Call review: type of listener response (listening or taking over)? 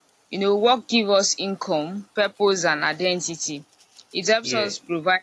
listening